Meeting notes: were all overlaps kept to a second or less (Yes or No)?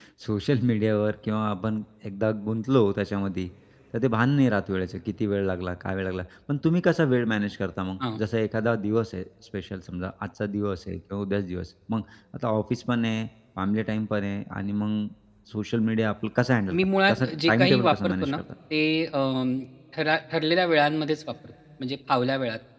No